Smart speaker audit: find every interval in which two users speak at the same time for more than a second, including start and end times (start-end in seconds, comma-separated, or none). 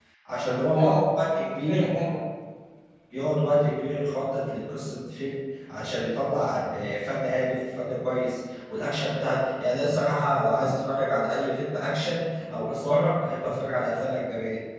0.7-2.0